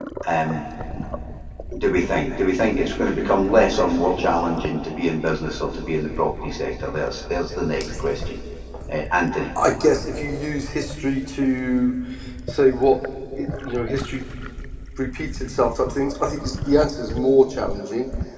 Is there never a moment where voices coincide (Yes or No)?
Yes